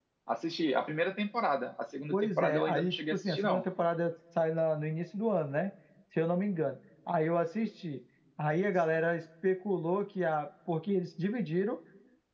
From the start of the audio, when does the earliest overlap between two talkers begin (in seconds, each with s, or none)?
2.1 s